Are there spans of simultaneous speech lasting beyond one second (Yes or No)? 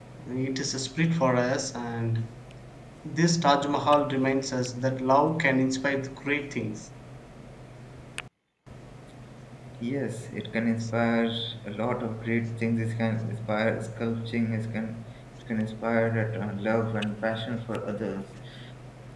No